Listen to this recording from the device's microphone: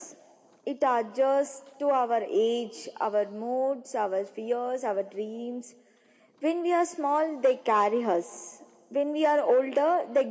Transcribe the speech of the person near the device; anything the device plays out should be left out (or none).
none